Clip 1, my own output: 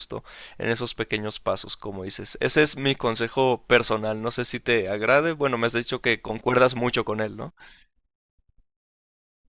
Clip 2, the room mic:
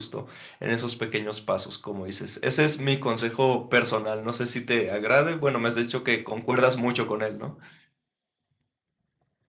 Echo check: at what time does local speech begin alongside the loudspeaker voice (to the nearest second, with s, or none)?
none